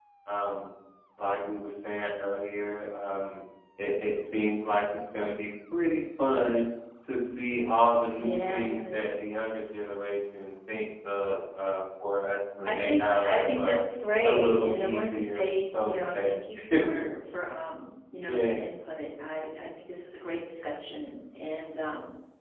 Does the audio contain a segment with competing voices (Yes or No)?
Yes